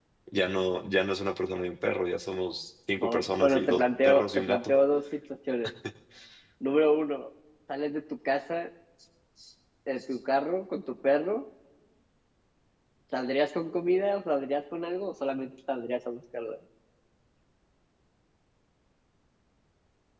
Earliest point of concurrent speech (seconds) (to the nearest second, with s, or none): 3 s